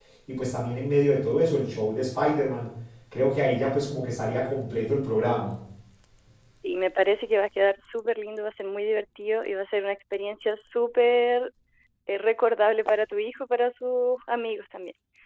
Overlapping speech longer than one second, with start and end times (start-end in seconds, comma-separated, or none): none